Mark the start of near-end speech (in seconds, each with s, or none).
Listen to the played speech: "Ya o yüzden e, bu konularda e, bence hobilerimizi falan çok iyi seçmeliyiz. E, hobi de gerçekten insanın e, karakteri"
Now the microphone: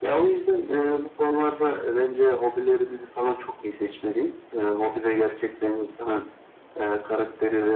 none